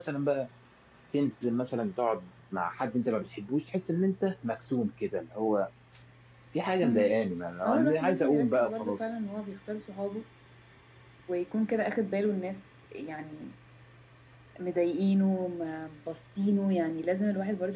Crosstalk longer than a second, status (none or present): present